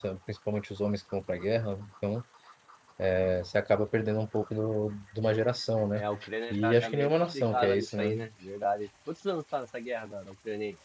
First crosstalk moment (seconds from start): 7 s

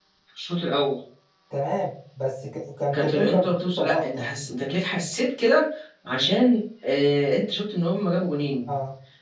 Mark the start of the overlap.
3 s

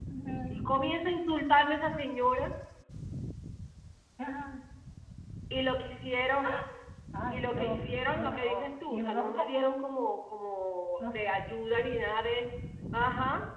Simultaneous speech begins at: 7 s

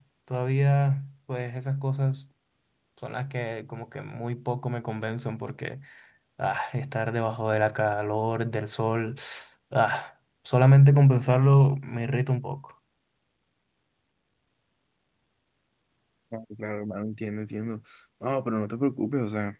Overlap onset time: none

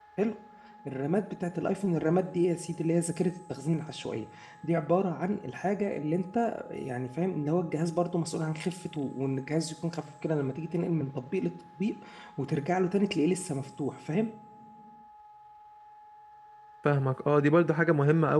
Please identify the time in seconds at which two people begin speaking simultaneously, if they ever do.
none

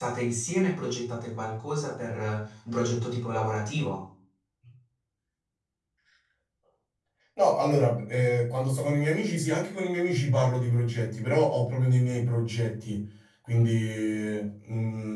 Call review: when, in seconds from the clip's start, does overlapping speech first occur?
none

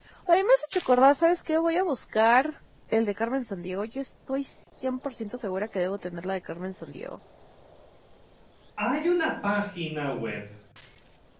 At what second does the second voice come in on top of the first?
none

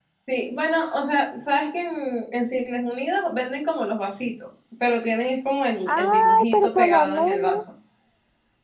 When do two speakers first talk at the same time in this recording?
6 s

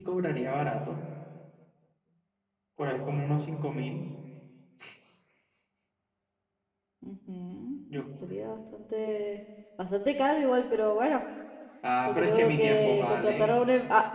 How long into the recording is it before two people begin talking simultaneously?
12 s

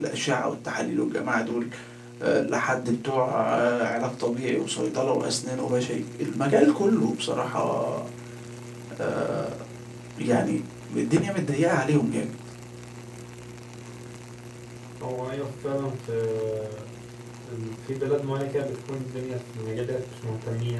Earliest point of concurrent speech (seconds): none

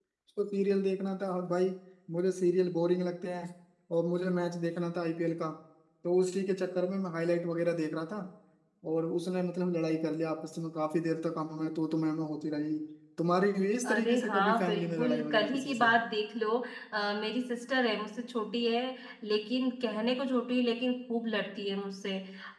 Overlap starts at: 14 s

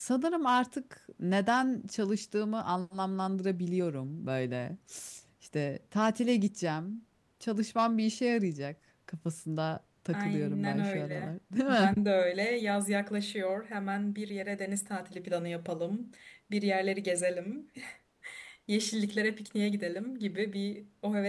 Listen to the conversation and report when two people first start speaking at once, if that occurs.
10 s

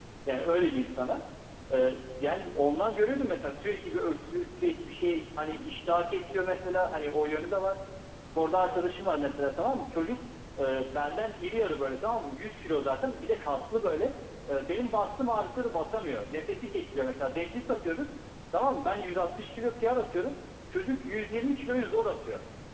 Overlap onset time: none

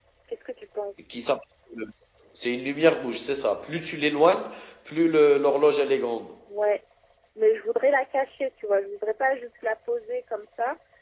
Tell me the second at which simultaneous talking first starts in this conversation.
none

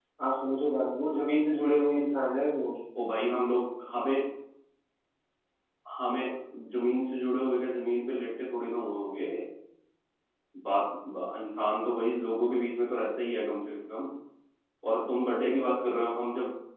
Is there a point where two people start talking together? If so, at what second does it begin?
none

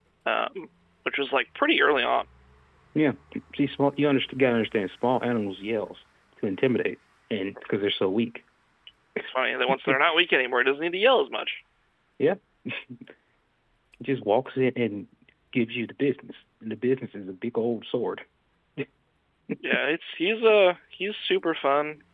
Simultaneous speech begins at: none

